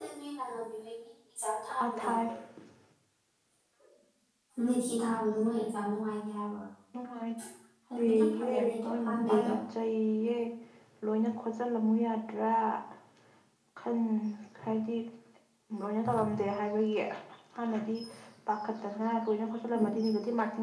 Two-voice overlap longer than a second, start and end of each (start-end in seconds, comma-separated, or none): 8.0-9.5